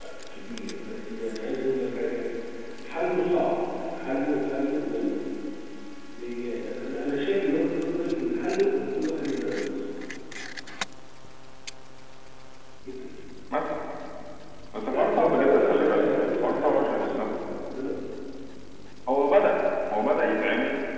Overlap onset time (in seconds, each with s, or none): 14.9 s